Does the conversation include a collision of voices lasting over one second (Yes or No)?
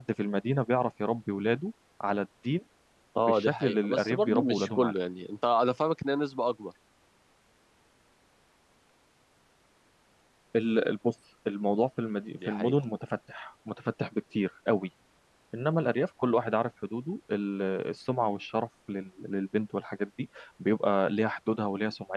Yes